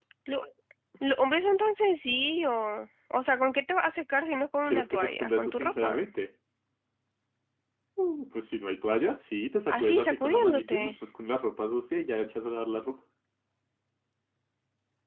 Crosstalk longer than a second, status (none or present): present